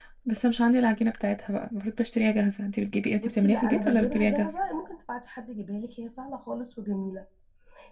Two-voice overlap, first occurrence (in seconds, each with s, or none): 3.2 s